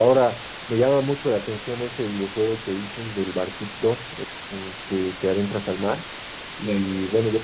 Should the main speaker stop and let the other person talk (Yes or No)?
No